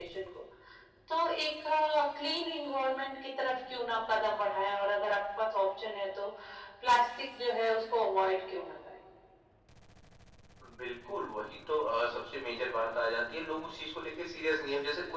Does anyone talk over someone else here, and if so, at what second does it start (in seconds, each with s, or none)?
none